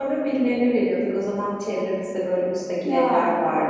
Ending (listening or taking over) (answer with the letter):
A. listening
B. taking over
A